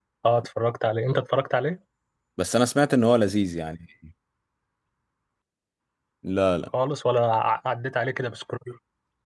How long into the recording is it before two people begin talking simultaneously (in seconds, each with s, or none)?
none